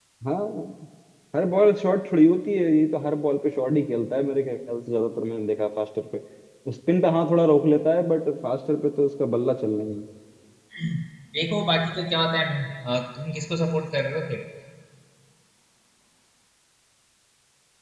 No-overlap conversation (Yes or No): Yes